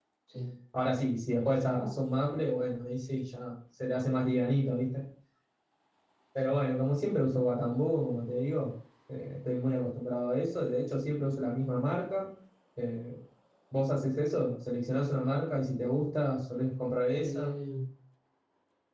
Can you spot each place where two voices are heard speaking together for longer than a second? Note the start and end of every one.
none

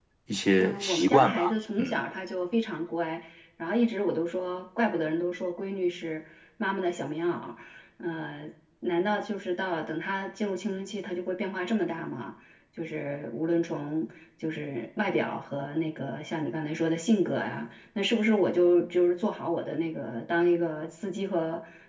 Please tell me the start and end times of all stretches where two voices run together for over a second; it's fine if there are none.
0.6-2.0

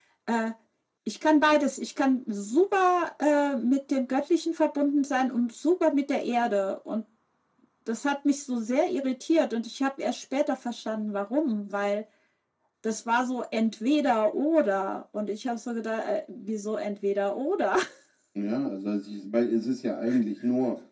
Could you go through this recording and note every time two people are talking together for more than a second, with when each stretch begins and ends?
none

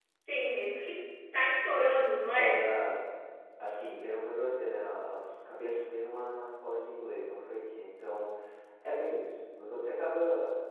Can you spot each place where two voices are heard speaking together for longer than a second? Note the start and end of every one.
none

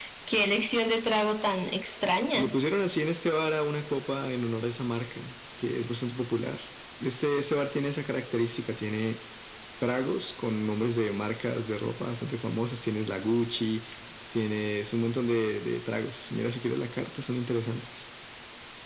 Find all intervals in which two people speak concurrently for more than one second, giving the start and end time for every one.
none

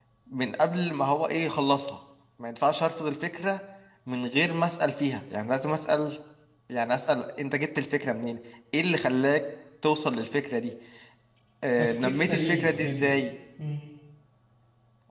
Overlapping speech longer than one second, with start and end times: 11.8-13.1

